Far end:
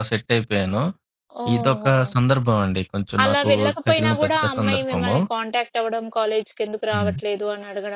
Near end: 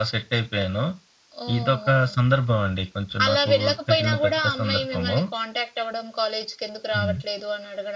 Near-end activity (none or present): none